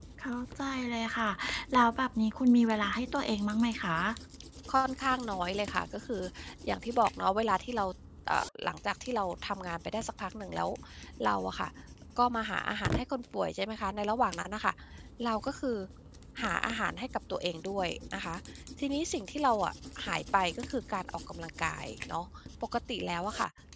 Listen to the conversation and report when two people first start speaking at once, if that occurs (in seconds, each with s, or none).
none